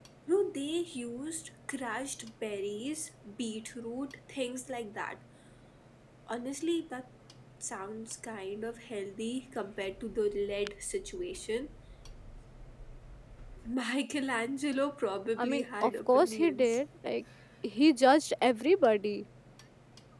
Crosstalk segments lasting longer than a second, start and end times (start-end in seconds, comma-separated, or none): 15.4-16.8